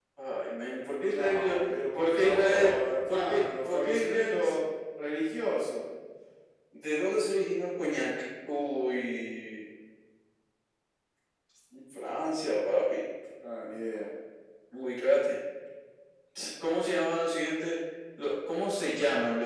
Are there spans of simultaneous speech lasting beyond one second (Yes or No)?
Yes